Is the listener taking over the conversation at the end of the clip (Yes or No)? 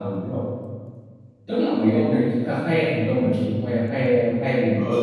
Yes